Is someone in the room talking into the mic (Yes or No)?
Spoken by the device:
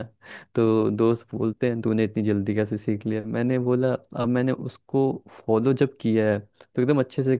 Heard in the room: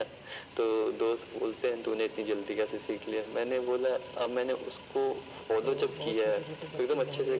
Yes